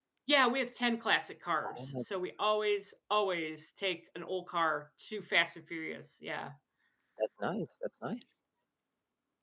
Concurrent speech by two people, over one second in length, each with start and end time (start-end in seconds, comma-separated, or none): none